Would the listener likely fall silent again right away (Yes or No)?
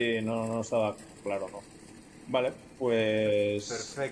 No